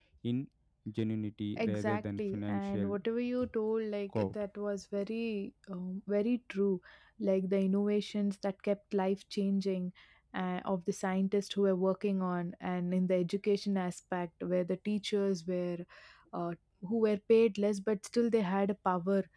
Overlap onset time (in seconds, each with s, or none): 1.6 s